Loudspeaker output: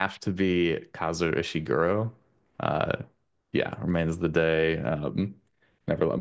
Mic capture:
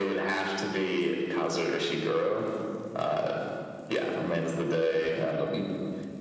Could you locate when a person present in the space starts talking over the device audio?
none

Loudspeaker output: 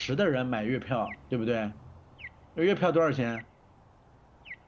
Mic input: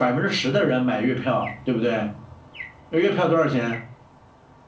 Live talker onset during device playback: none

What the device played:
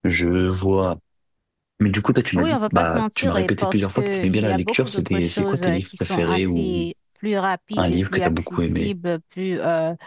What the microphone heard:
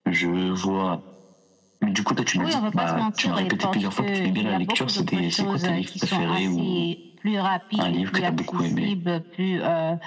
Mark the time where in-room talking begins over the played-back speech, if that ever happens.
none

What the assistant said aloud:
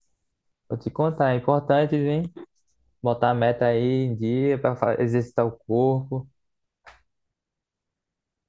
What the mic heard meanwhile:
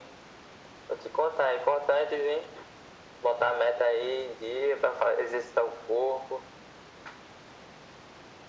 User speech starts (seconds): none

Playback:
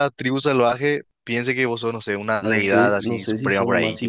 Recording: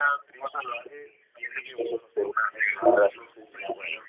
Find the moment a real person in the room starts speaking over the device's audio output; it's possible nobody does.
none

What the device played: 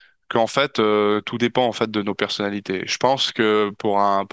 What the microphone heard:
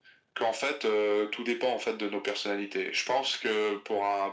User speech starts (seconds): none

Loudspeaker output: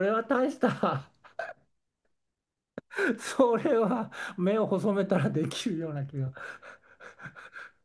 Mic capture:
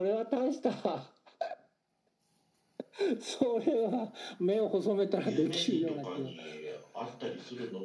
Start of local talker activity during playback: 5.2 s

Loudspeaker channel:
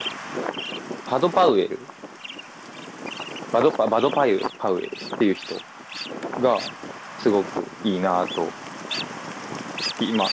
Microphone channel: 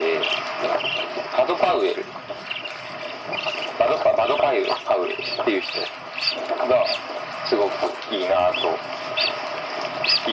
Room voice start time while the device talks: none

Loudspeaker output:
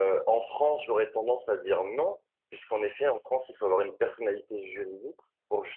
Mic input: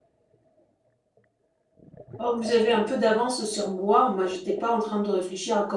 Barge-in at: 2.2 s

